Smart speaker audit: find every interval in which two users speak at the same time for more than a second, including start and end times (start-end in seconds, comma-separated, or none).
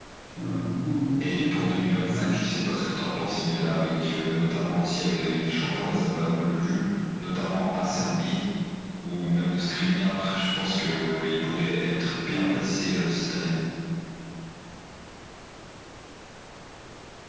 1.2-2.4